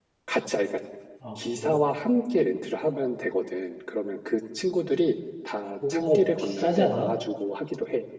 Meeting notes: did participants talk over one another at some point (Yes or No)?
Yes